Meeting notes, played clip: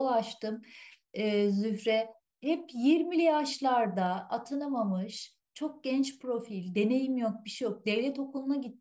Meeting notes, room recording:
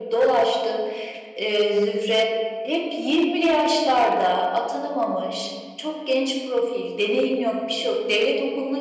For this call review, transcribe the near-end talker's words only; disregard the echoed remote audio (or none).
none